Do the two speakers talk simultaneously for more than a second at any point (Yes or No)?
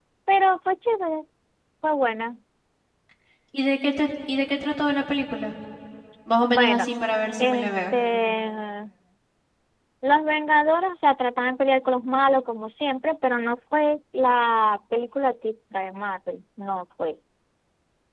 No